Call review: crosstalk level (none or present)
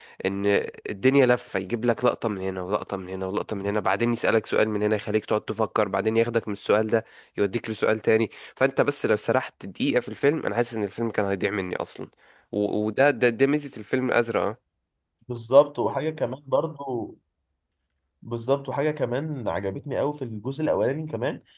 none